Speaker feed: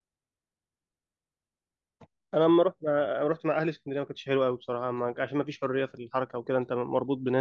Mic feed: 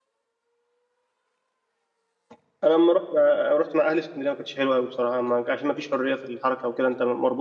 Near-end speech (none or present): none